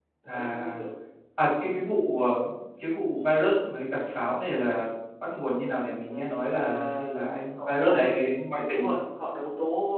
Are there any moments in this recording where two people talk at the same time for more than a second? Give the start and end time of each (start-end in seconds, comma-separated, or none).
6.1-8.2